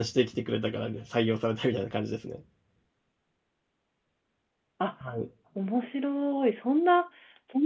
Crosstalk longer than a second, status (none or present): none